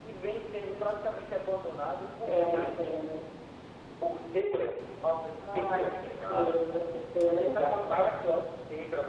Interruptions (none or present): present